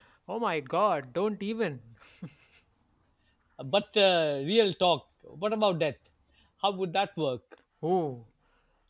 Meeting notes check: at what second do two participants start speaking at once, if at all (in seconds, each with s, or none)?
none